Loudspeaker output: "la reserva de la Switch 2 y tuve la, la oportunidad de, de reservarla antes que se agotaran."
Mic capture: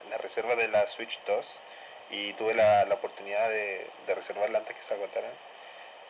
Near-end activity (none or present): none